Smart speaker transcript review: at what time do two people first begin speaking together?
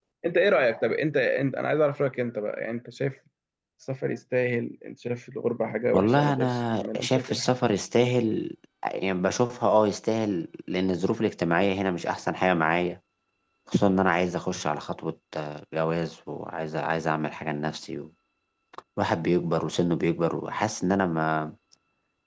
5.9 s

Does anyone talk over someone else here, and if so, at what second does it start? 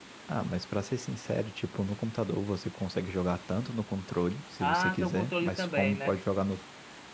4.6 s

